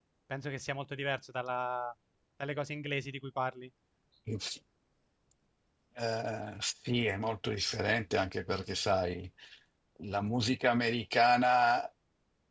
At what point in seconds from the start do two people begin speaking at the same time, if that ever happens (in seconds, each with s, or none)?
none